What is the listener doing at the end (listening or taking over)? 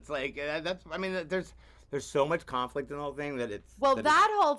taking over